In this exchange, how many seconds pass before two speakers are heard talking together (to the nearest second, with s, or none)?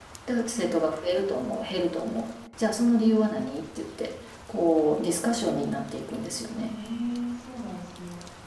none